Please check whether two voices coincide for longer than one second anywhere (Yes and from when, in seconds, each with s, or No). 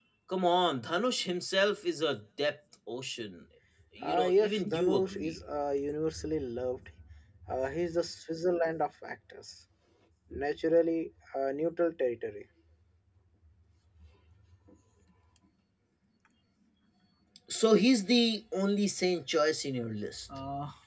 Yes, from 4.0 s